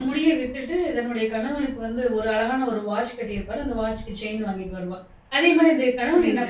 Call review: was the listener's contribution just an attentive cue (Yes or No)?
Yes